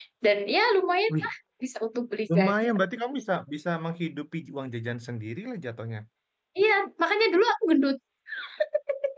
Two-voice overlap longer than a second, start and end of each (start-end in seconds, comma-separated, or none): none